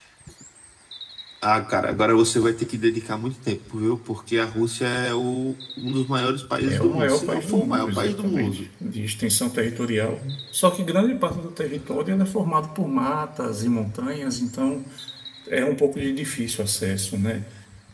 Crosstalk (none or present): present